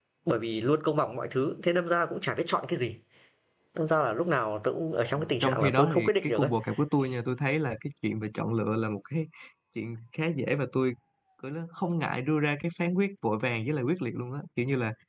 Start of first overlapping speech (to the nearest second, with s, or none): 5 s